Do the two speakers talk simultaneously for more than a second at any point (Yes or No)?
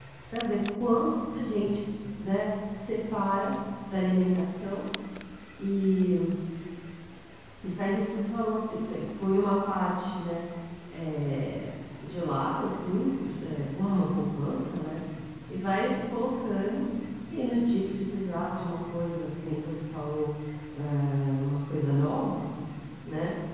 No